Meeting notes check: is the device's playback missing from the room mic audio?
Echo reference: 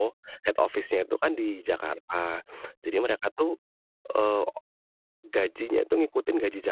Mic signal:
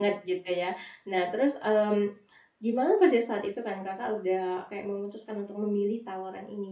Yes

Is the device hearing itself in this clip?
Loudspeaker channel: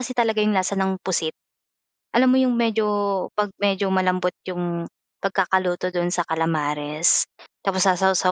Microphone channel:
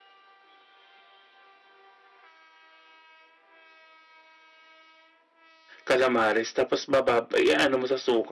No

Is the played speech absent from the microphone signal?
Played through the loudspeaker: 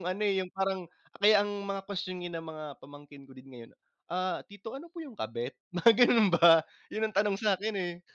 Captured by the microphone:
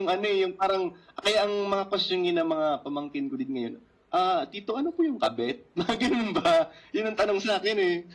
No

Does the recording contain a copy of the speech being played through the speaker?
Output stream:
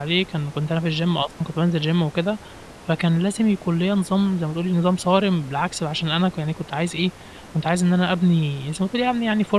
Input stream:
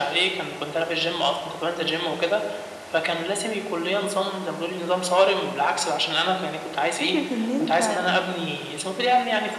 Yes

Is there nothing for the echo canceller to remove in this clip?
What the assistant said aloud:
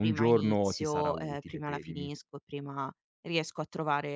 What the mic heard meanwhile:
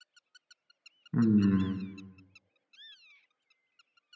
Yes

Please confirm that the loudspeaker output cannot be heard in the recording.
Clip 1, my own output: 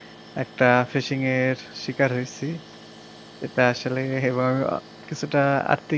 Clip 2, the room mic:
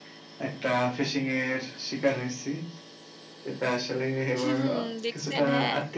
No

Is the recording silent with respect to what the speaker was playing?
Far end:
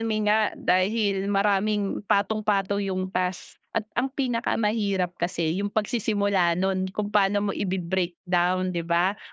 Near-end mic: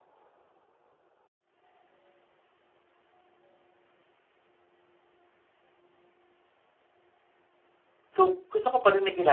Yes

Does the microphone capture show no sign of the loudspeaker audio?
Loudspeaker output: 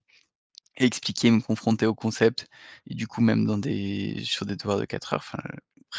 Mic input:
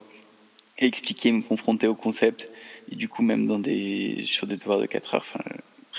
No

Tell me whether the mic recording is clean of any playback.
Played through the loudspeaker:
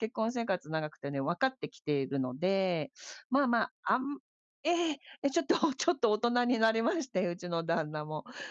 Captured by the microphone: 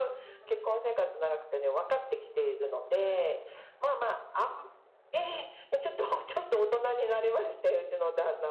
No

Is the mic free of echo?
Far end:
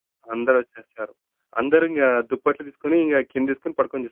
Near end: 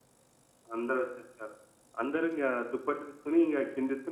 No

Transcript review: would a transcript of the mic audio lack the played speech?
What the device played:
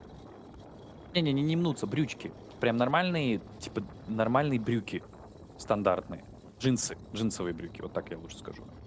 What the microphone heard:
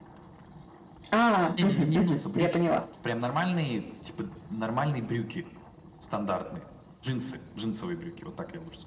No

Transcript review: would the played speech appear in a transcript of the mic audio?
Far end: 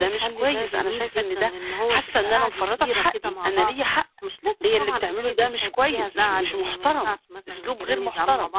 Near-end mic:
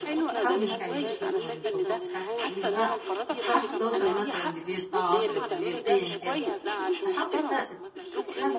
Yes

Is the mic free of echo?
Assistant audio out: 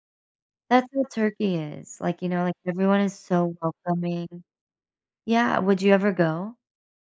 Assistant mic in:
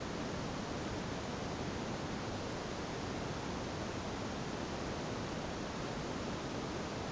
Yes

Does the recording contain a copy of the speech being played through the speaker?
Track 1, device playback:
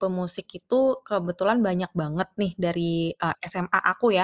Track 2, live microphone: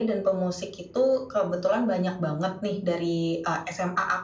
Yes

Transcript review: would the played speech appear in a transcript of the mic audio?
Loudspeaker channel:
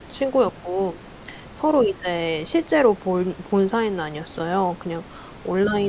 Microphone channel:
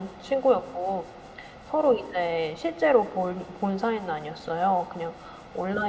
Yes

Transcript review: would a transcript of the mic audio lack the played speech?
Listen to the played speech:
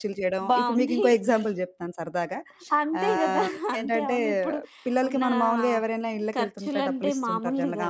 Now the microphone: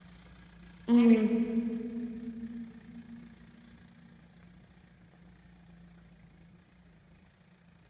Yes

